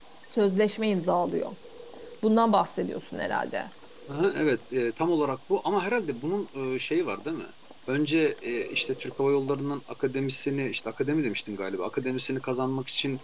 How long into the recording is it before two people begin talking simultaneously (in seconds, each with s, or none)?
none